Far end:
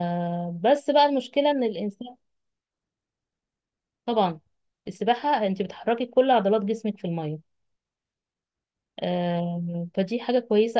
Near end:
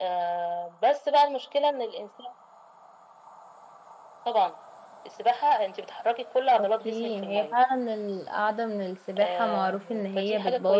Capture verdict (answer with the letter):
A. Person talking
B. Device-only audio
A